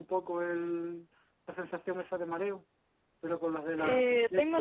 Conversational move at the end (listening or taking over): taking over